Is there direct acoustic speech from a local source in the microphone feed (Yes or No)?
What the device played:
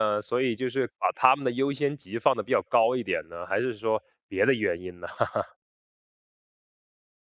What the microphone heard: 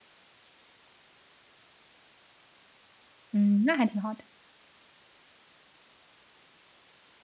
Yes